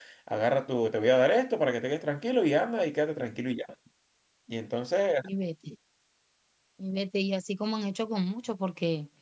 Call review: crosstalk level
none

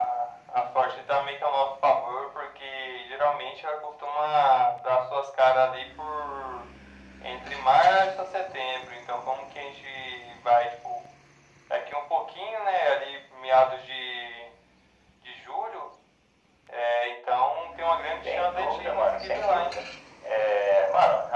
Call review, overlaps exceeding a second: present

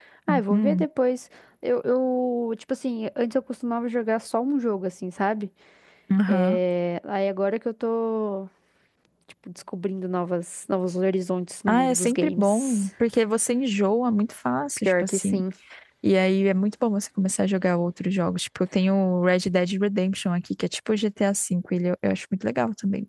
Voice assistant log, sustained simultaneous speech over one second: present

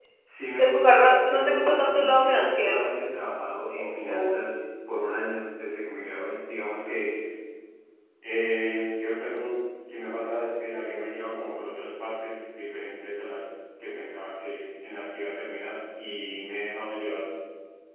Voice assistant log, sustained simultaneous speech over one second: present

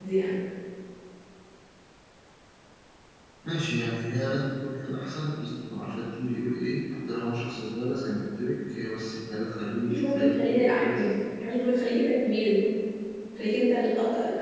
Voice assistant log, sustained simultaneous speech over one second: present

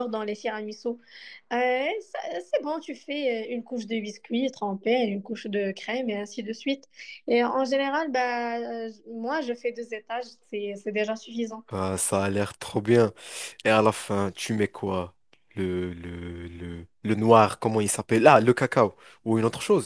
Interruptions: none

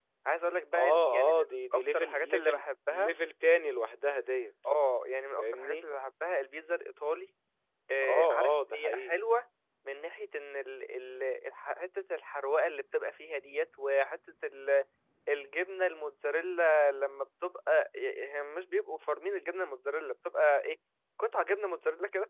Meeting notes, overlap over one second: present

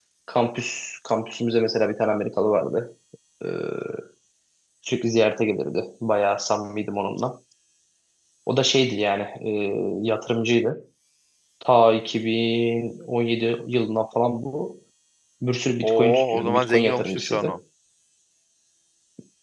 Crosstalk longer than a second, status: present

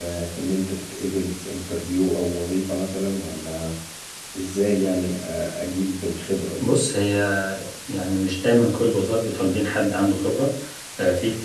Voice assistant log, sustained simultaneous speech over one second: none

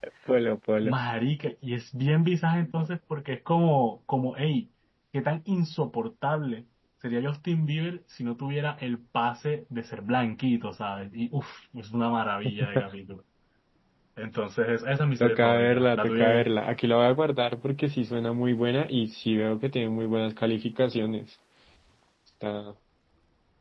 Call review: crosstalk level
present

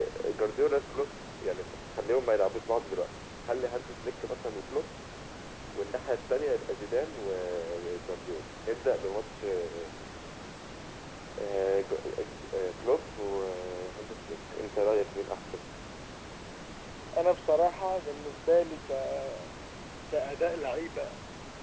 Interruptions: none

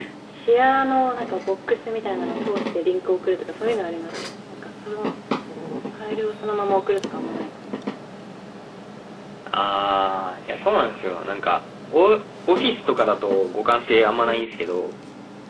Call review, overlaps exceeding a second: none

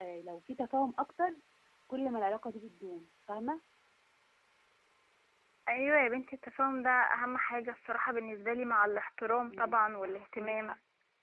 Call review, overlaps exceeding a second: present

